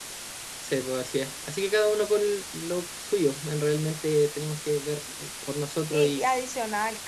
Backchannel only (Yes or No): No